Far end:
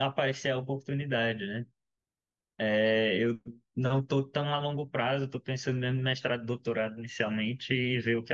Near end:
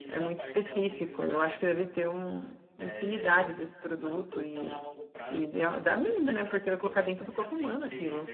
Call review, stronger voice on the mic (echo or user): user